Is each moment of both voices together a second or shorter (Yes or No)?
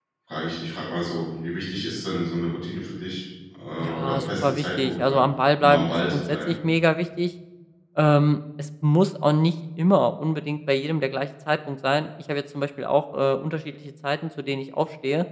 No